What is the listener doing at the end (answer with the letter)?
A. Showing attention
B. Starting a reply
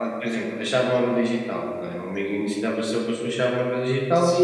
B